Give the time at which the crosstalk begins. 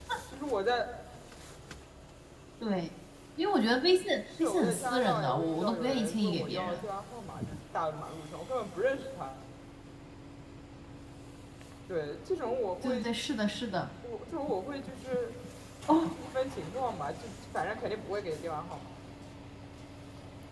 4.3 s

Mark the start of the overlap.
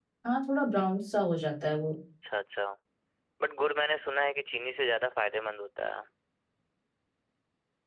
none

